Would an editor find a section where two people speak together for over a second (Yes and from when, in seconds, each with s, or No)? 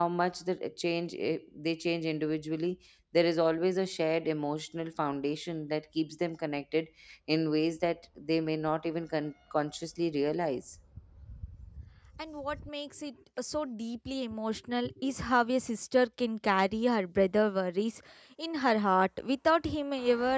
No